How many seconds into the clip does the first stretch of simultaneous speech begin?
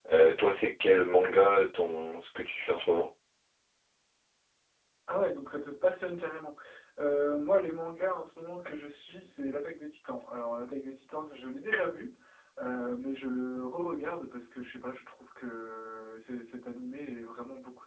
none

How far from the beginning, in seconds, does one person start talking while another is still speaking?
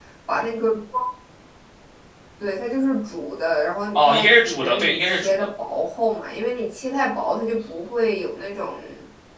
3.9 s

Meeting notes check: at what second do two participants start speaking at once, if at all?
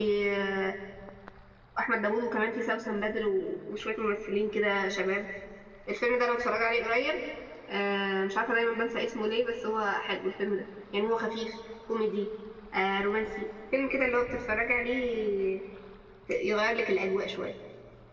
none

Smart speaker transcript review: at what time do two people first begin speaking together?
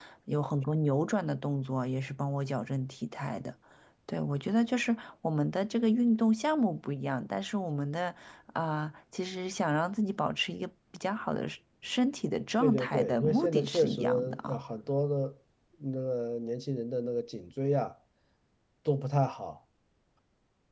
12.6 s

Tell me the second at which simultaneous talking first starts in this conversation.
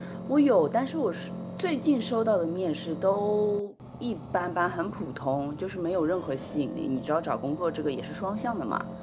none

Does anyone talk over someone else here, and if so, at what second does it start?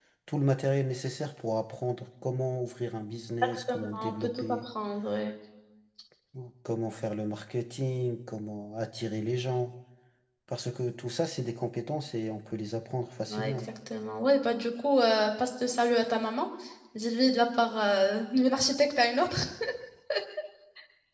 3.4 s

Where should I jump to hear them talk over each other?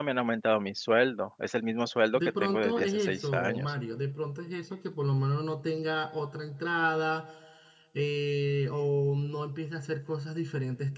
2.1 s

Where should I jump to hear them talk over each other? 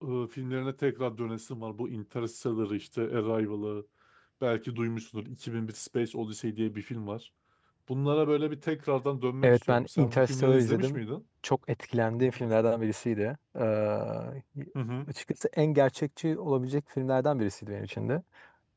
9.4 s

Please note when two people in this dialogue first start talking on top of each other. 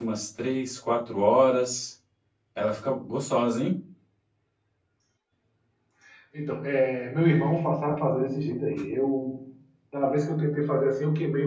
none

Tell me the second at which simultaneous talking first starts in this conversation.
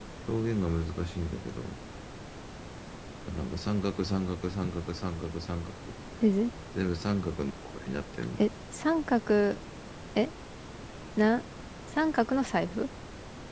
none

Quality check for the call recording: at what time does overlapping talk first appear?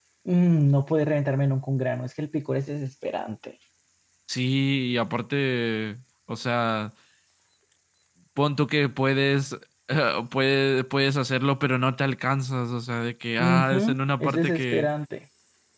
13.4 s

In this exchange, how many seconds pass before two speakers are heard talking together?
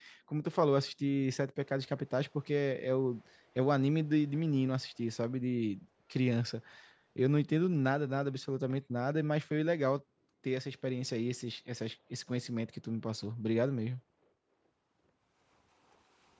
none

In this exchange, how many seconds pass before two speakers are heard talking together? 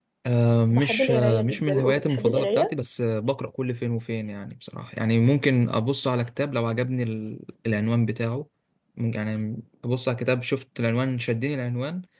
0.7 s

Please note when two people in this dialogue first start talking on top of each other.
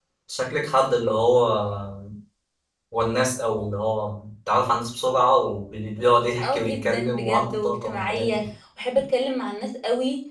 6.4 s

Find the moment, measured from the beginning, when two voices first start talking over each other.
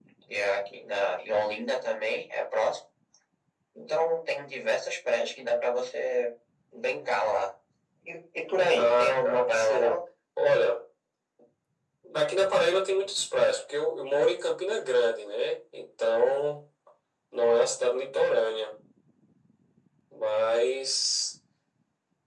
8.8 s

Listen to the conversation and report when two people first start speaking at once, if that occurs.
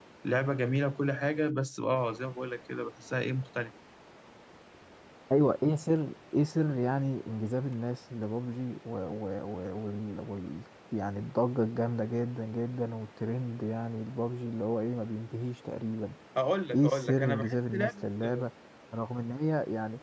16.7 s

